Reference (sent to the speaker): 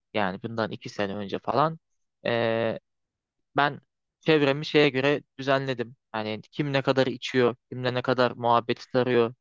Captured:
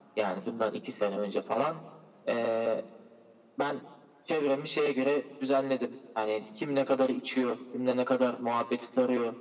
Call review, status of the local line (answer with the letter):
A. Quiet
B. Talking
A